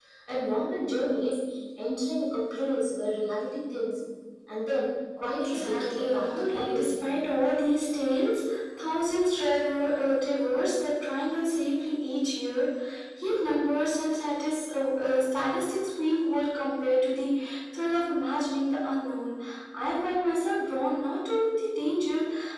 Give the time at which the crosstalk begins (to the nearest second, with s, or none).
5 s